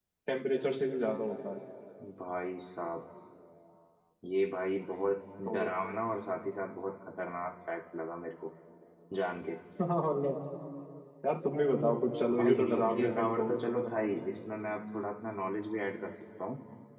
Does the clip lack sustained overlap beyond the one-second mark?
No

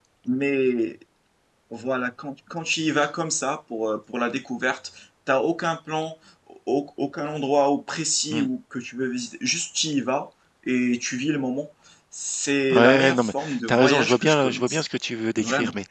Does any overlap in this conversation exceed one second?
Yes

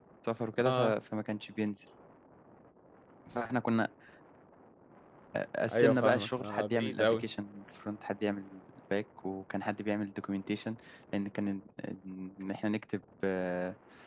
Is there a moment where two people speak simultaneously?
Yes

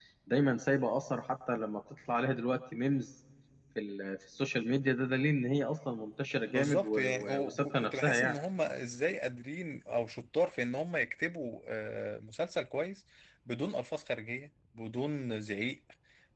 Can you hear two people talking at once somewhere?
Yes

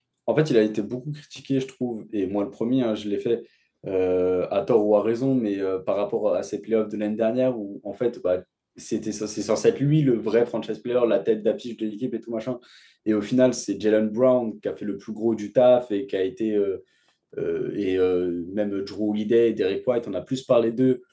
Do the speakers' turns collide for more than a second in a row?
No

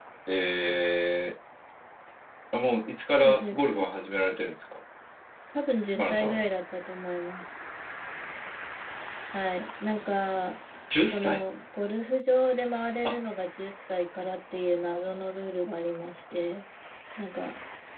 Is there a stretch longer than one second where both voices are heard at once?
No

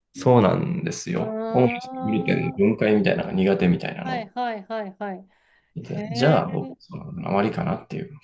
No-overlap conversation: No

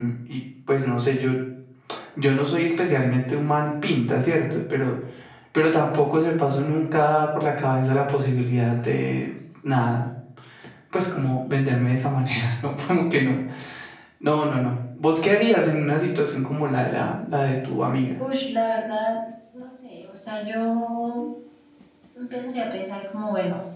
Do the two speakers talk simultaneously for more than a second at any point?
No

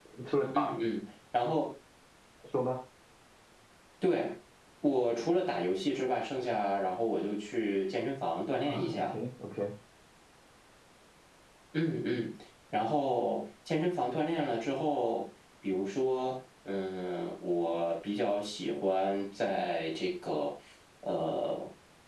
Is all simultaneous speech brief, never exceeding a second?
Yes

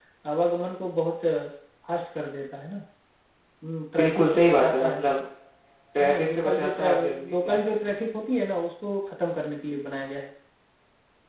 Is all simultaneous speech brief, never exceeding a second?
No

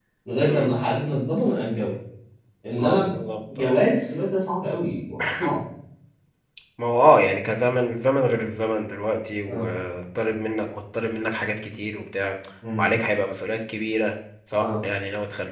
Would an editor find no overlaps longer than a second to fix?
Yes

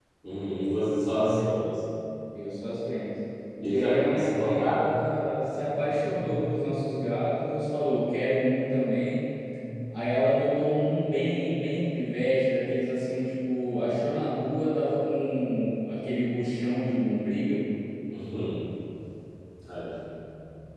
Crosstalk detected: Yes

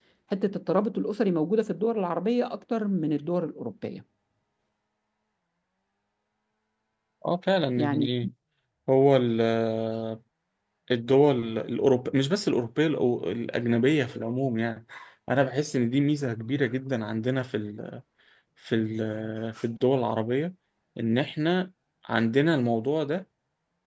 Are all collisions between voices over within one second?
Yes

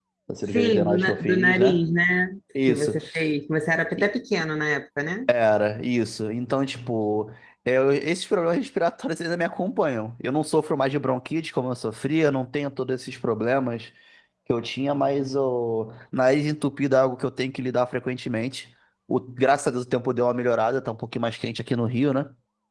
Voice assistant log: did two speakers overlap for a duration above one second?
Yes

